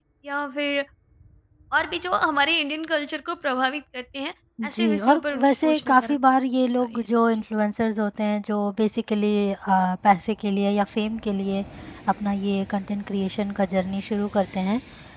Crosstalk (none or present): present